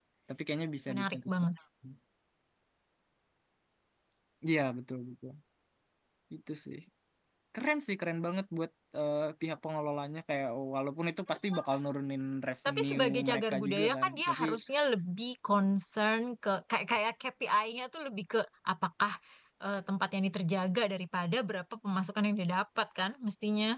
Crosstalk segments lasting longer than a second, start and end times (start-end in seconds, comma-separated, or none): 12.7-14.4